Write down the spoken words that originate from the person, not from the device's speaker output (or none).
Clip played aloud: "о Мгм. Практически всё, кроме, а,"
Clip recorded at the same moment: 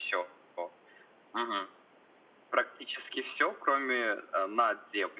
none